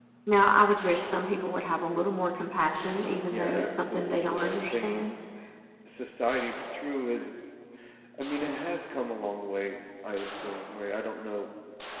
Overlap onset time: 3.3 s

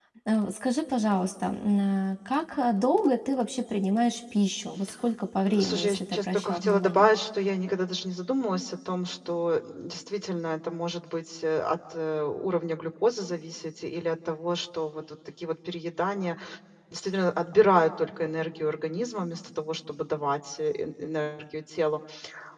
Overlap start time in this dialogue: 5.5 s

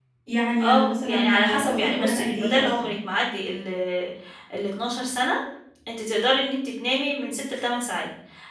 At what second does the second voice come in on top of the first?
0.6 s

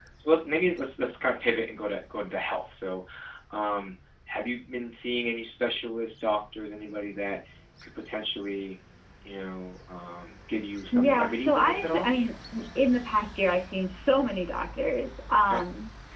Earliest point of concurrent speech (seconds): 10.9 s

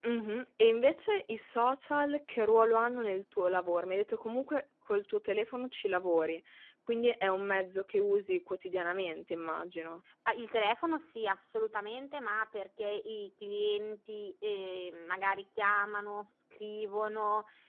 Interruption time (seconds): none

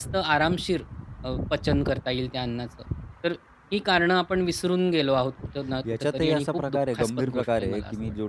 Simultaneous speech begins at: 5.8 s

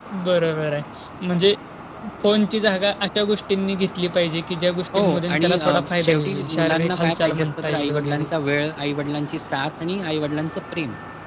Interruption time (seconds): 4.9 s

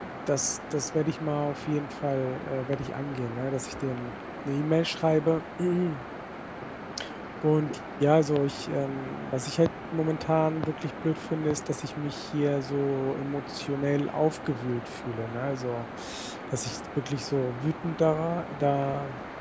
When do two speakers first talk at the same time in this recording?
none

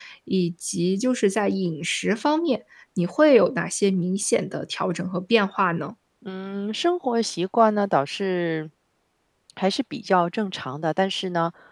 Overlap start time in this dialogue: none

